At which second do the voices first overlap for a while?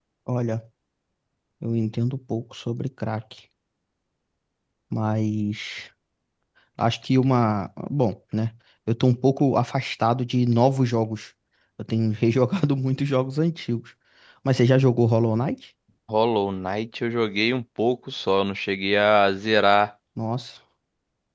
none

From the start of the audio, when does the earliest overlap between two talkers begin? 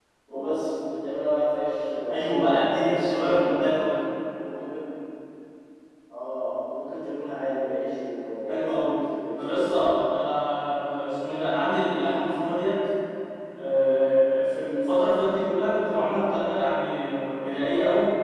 2.1 s

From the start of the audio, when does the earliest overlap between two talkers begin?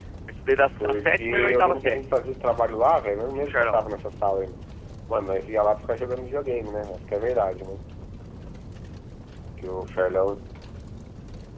0.8 s

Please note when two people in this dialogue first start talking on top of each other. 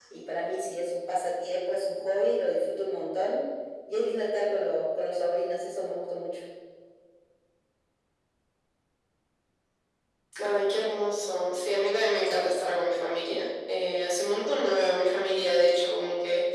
none

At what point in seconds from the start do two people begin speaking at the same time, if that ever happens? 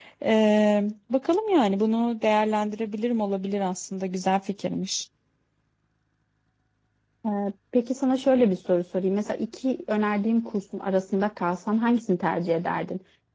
none

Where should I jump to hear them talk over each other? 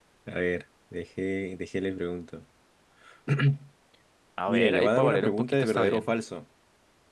4.5 s

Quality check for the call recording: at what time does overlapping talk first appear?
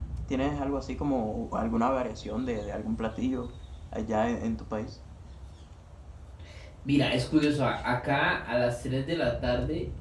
none

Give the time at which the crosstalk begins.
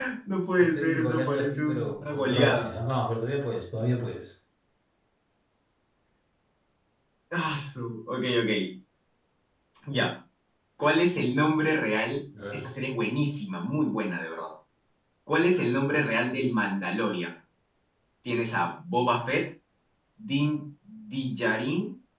0.6 s

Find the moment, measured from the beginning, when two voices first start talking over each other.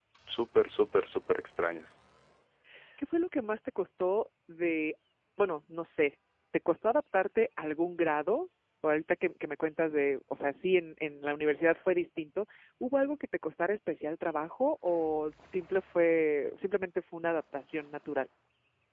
none

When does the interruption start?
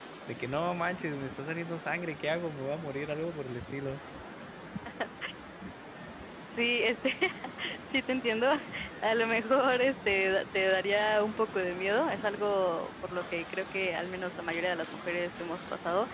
none

